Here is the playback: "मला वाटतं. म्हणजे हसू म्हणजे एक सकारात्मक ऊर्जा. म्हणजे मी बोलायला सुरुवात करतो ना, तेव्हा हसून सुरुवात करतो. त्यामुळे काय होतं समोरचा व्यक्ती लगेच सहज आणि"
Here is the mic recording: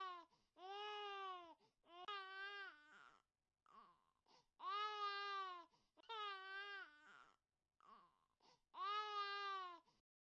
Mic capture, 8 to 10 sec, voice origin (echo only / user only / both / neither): neither